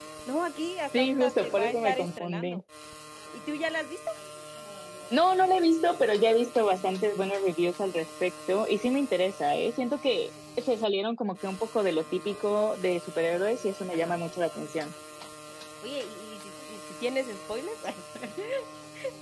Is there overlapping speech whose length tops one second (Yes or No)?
Yes